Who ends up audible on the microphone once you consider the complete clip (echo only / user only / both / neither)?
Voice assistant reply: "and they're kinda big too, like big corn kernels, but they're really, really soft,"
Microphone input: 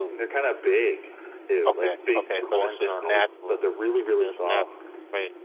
both